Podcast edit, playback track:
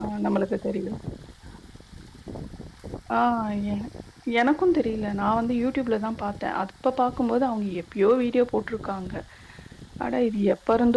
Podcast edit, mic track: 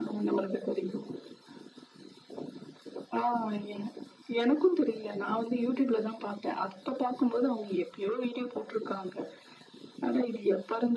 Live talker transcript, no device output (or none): none